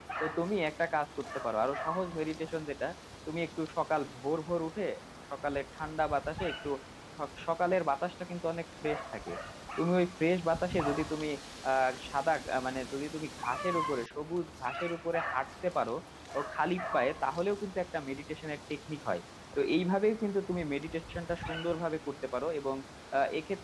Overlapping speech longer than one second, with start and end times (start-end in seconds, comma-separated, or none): none